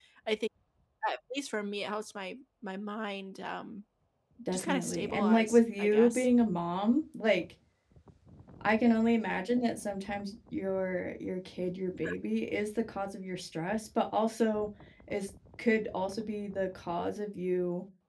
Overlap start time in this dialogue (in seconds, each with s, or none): 4.5 s